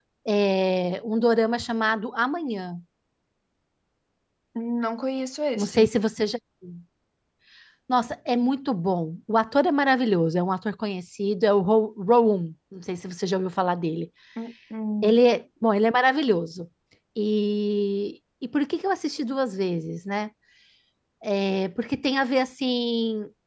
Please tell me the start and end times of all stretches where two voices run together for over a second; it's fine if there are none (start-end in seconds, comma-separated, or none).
none